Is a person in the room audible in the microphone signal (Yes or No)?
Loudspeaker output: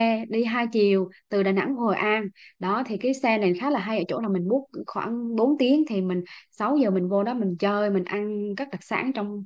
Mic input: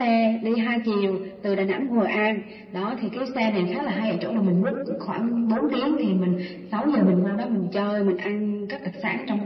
No